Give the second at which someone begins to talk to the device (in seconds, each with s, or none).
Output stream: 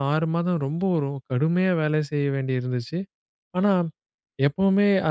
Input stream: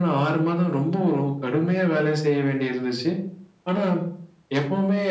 none